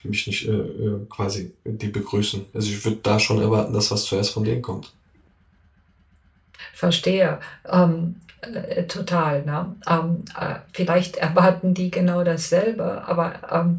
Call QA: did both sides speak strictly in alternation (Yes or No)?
Yes